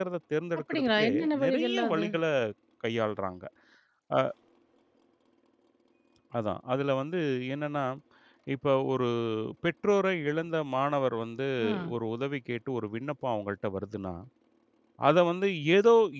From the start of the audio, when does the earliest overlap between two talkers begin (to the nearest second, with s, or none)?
1 s